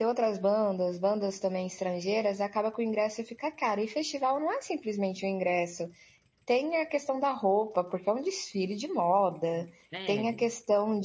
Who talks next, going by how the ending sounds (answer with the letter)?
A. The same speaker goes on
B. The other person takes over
A